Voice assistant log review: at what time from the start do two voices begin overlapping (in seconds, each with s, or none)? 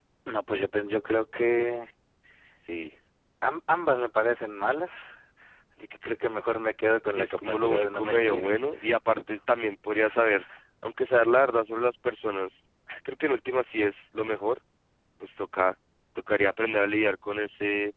7.1 s